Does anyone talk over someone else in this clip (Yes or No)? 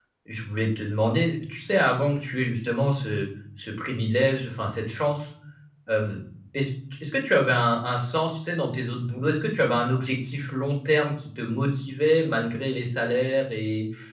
No